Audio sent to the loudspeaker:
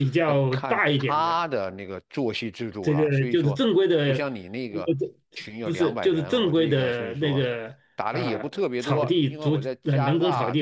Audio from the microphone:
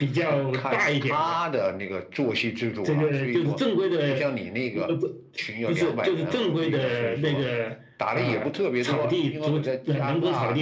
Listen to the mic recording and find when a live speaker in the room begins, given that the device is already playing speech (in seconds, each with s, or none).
none